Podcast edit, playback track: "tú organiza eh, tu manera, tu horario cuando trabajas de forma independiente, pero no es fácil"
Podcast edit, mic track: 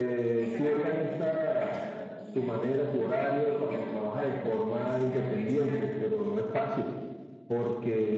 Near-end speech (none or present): present